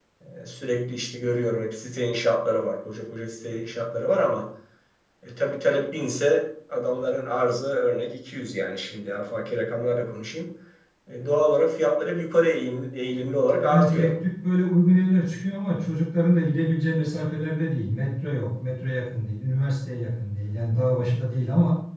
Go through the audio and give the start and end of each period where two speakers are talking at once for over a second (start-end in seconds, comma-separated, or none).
none